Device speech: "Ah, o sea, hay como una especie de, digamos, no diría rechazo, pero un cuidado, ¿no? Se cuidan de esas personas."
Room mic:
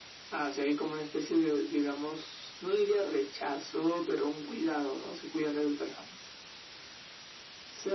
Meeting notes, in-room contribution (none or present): none